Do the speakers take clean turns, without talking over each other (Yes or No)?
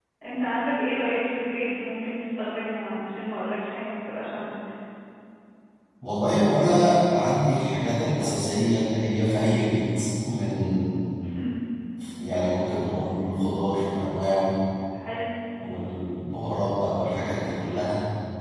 Yes